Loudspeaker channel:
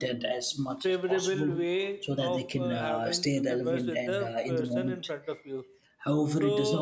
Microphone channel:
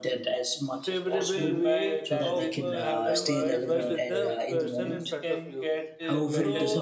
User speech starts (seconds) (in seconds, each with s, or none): 1.1 s